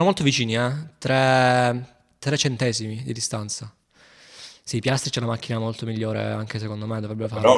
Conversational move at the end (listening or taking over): listening